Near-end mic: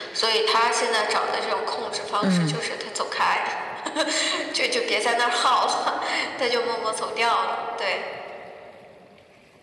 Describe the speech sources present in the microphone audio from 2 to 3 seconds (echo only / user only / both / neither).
both